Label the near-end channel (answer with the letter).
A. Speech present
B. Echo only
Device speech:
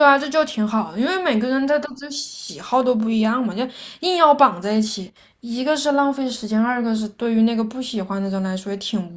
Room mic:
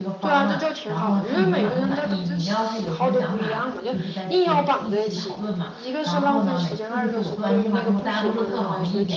A